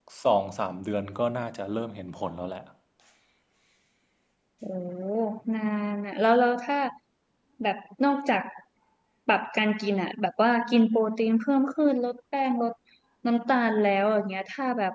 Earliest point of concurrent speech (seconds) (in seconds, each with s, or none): none